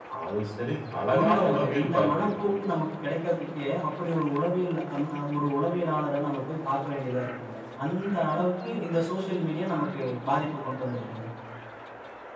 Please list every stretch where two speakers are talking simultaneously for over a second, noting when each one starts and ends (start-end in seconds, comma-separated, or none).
1.2-2.4